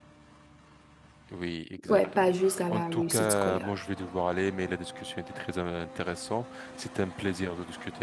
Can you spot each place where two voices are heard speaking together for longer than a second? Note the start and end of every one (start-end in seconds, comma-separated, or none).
1.9-3.7